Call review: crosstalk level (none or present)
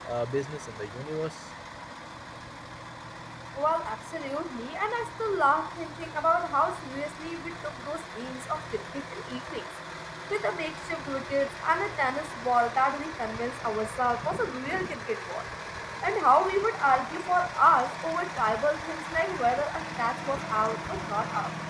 none